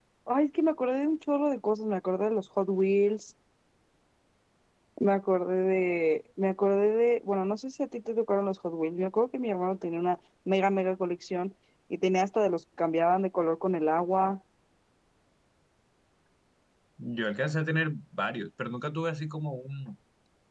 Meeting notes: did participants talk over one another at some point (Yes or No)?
No